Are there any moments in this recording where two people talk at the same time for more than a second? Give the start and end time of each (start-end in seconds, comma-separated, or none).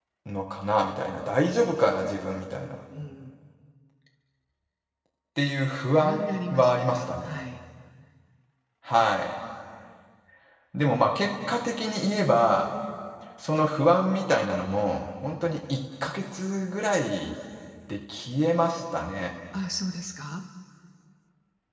6.0-7.3